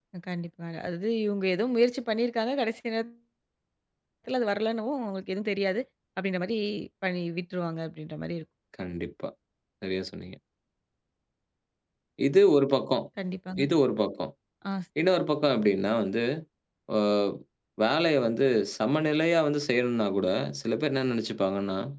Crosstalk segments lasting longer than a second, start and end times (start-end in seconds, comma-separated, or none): none